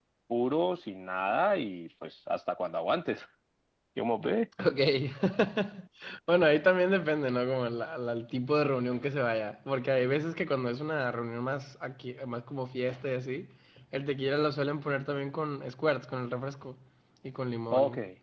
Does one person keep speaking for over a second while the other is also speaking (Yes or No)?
No